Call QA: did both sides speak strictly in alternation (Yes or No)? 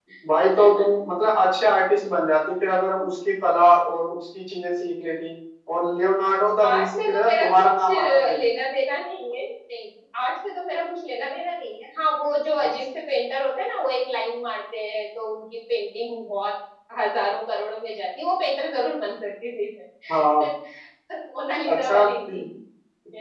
No